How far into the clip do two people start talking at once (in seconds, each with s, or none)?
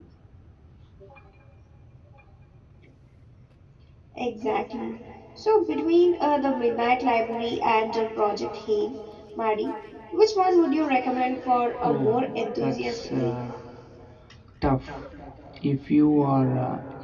11.8 s